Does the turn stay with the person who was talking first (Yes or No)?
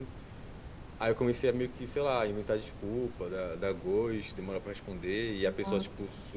Yes